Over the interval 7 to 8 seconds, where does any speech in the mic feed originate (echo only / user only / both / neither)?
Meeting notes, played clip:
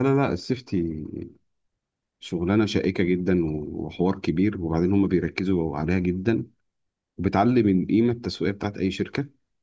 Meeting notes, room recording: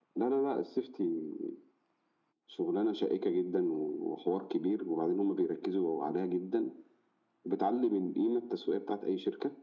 echo only